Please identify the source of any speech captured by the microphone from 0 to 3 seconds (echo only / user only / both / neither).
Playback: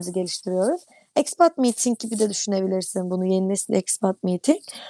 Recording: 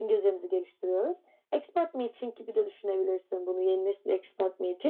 echo only